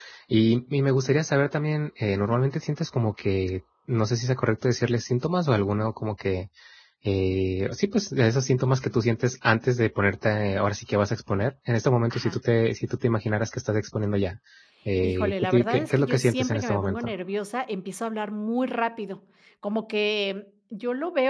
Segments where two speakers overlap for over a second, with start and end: 15.0-17.1

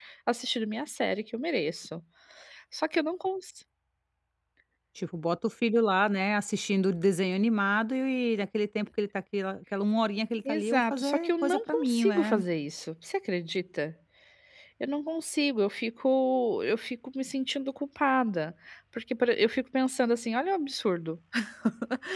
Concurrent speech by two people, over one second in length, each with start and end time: 10.5-12.4

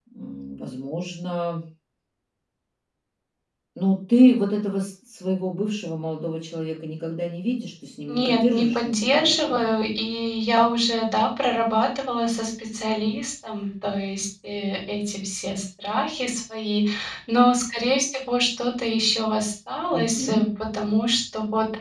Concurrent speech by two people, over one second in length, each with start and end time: 8.1-9.7

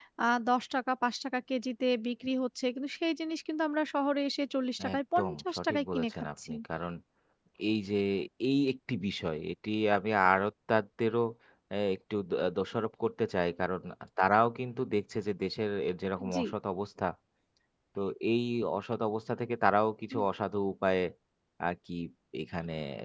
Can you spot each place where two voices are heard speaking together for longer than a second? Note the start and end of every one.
4.8-6.5

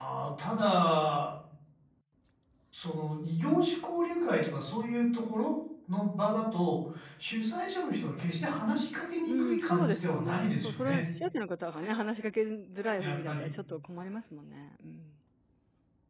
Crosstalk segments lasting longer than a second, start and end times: 9.3-11.0

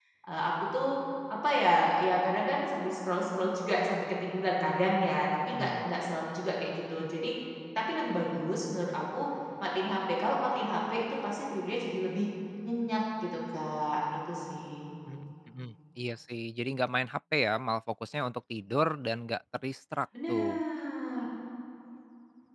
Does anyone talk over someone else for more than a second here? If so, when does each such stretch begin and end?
none

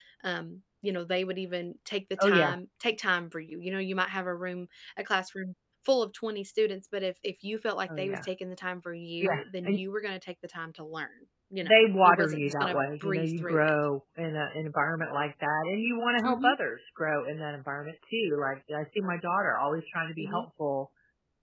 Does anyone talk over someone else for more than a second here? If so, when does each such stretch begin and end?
11.6-13.8

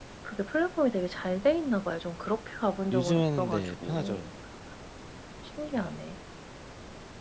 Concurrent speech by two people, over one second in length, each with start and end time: 2.9-4.3

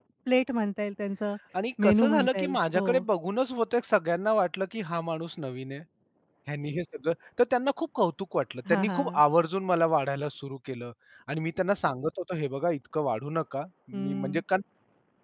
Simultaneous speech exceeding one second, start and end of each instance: 1.8-3.0

